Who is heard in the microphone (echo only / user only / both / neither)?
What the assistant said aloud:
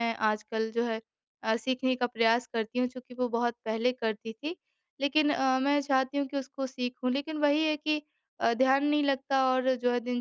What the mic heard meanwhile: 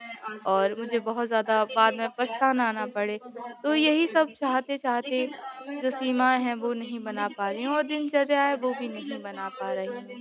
both